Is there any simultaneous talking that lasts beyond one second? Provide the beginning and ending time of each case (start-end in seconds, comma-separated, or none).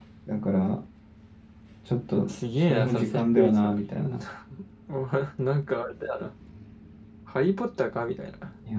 2.3-4.1